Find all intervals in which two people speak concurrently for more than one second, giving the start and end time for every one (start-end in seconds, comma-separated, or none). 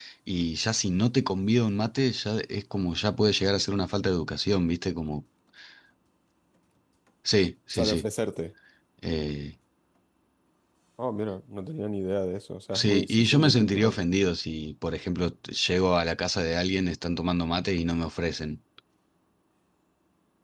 12.7-14.0